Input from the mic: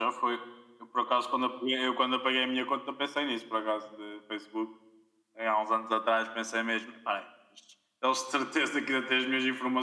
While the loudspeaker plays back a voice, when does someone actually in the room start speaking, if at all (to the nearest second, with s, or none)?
none